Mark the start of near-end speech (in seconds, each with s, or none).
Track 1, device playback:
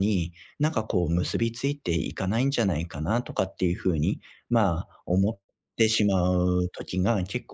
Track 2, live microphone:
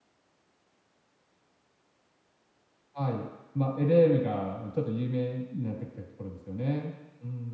2.9 s